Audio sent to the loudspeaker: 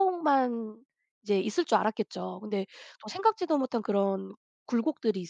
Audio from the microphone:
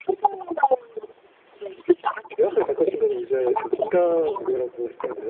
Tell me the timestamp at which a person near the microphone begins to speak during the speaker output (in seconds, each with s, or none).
2.4 s